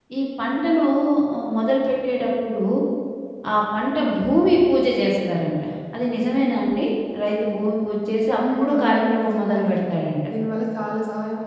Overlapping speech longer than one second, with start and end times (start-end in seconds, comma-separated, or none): 8.4-9.8